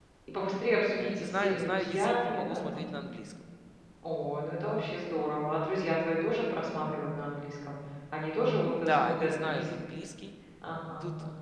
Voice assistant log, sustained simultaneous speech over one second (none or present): present